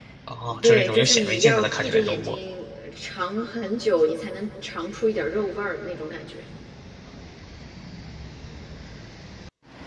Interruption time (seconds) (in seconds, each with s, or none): 0.6 s